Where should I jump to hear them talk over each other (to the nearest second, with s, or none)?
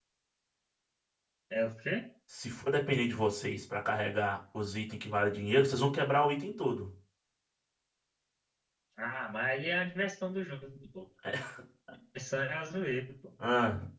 none